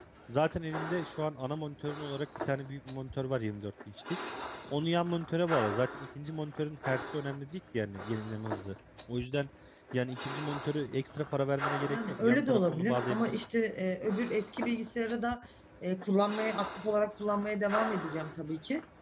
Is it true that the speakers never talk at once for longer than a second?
No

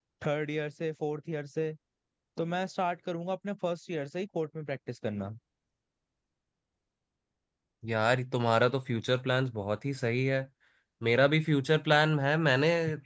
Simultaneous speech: No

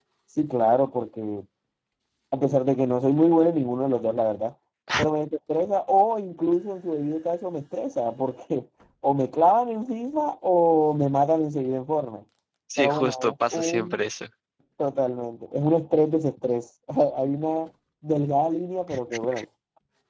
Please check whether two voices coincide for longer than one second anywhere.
Yes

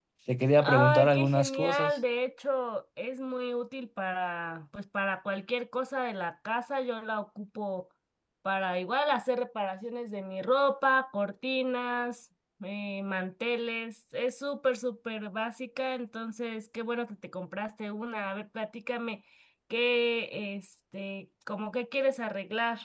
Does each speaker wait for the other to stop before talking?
No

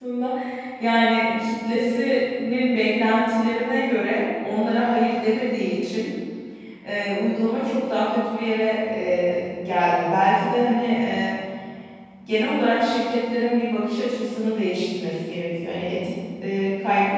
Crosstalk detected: No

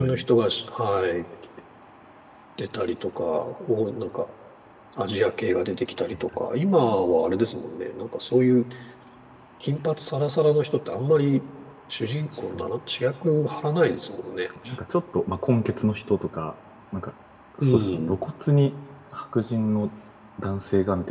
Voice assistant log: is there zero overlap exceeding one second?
Yes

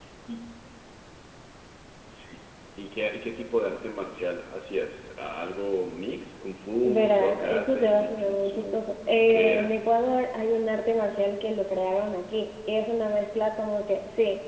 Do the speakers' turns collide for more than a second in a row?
Yes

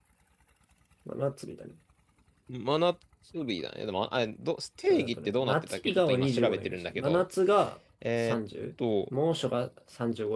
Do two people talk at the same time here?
Yes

